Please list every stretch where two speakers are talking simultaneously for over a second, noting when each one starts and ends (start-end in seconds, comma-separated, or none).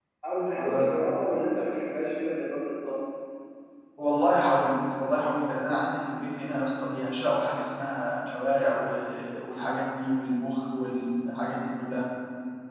none